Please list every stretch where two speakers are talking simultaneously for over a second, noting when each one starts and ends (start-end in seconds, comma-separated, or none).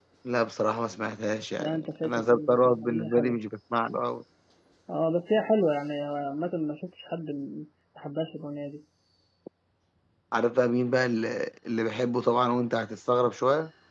1.6-3.4